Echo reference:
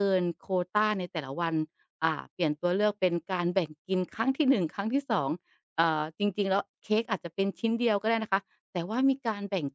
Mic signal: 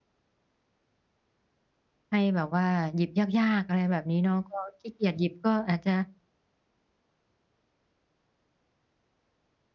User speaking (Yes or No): Yes